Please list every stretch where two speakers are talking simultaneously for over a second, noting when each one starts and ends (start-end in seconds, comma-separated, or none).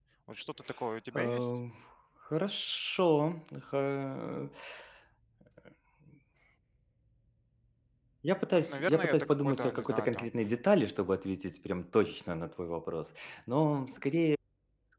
8.5-10.3